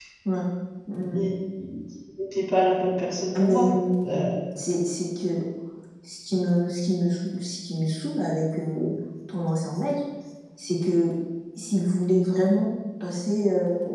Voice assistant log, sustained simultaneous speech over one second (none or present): none